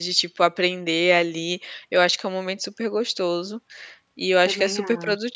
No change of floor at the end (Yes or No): Yes